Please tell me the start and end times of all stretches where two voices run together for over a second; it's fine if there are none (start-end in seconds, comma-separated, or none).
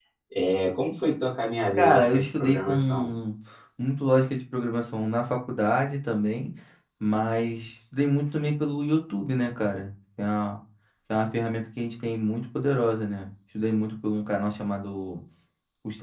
1.8-3.1